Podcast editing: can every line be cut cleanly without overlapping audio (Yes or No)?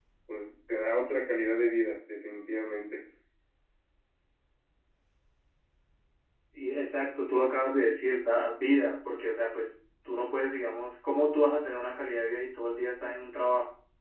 Yes